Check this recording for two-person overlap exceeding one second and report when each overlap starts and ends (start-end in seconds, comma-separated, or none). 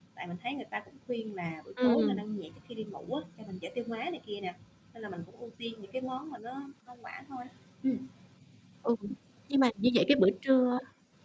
none